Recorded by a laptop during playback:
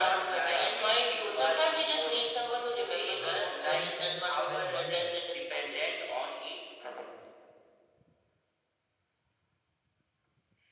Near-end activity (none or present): present